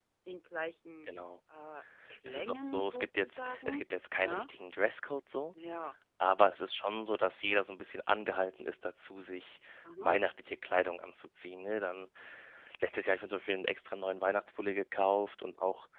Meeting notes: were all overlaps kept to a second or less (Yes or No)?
No